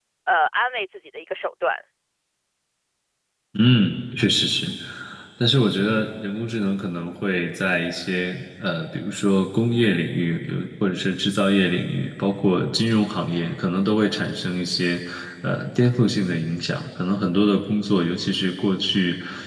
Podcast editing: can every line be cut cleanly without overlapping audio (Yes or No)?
Yes